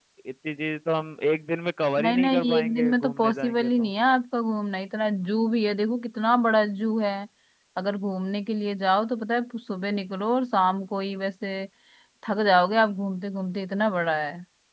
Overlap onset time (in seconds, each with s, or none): 2.0 s